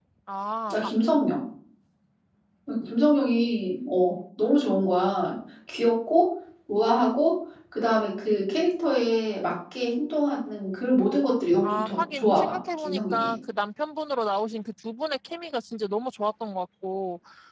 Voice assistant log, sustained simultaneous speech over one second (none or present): present